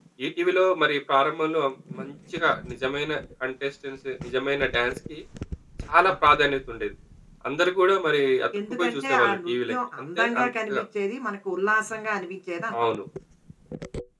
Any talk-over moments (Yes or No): Yes